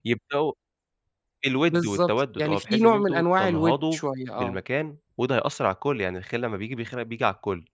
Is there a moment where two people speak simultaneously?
Yes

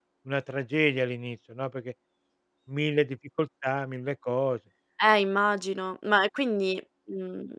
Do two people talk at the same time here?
No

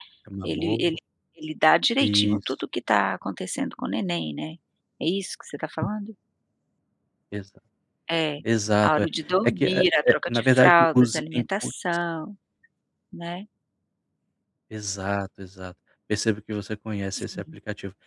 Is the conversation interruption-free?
No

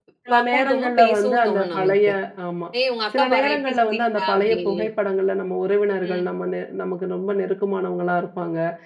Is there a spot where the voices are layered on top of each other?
Yes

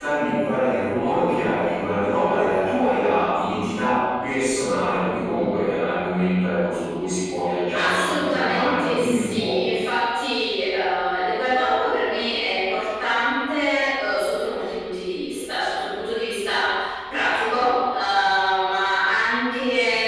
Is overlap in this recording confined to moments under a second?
No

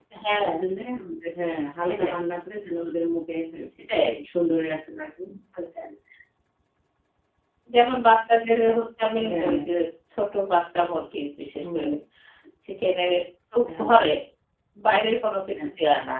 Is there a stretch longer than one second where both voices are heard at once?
No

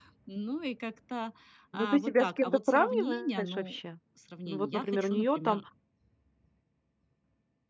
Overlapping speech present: Yes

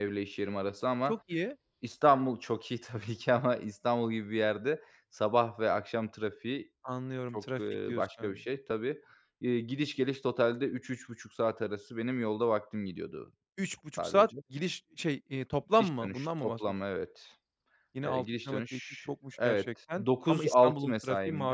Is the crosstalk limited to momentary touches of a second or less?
No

